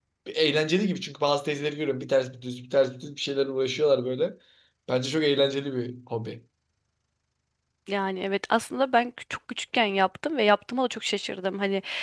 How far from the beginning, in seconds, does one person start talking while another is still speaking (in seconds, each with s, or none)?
none